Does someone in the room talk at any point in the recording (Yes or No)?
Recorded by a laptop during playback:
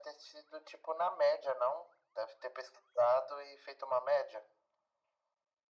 No